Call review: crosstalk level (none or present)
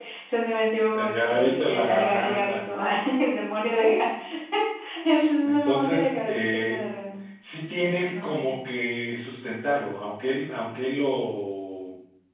present